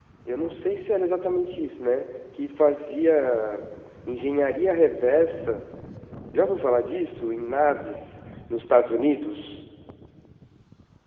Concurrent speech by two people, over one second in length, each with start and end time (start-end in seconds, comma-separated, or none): none